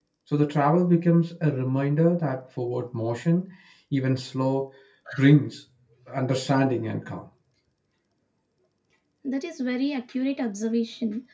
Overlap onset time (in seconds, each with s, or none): none